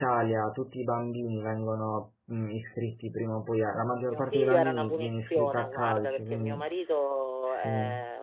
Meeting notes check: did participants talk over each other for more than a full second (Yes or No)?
Yes